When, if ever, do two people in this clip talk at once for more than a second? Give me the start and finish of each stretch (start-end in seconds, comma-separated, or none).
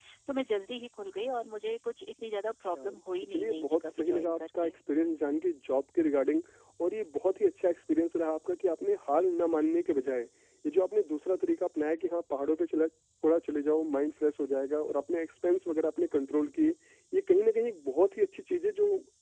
3.2-4.7